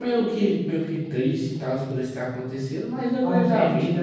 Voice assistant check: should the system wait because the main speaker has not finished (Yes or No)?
No